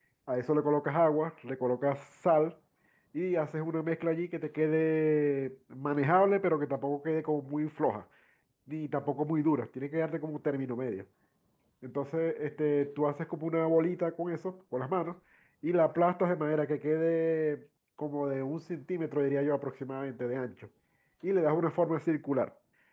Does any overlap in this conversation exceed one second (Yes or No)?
No